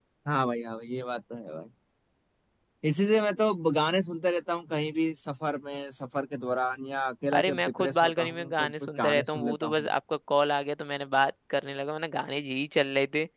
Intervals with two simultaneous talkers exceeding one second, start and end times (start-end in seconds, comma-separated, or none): 7.4-9.9